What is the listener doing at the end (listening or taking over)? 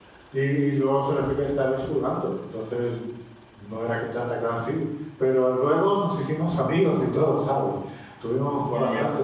listening